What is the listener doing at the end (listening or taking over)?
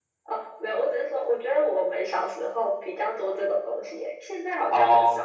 taking over